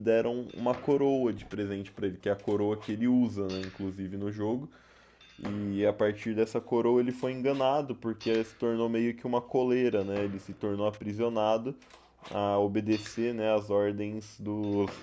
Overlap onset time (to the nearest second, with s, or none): none